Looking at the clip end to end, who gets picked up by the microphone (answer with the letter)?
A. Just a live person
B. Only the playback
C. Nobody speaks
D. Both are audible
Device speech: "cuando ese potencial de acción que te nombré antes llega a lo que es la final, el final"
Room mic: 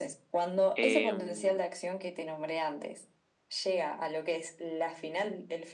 D